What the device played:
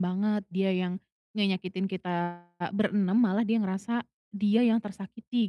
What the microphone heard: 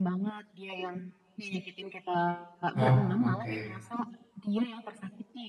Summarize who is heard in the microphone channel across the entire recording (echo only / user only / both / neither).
both